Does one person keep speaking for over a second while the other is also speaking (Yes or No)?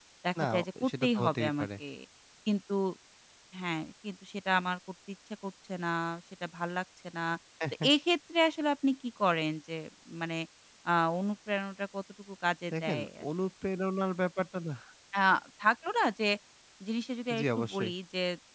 Yes